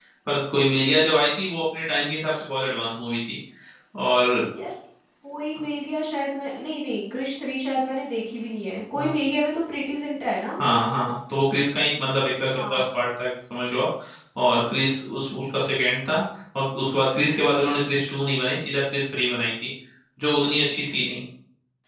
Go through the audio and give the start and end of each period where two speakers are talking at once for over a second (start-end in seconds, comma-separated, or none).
none